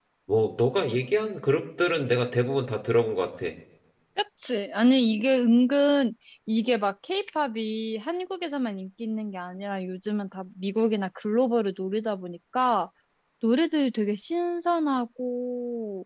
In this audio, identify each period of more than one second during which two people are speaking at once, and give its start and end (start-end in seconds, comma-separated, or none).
none